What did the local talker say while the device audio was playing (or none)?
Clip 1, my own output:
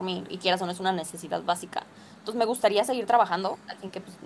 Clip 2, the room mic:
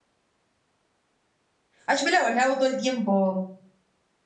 Ay, yo me lavo, lavo todo el tiempo.